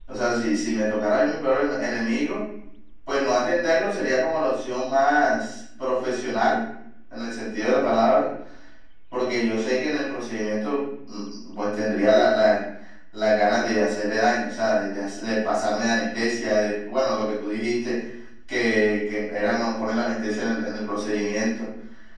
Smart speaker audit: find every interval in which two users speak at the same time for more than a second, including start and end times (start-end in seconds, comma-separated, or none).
none